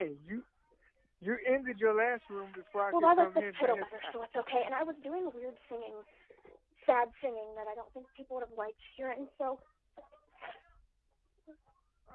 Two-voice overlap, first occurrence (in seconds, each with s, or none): 2.8 s